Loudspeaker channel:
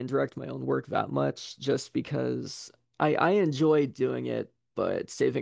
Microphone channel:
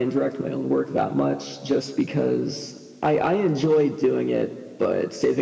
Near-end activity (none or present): none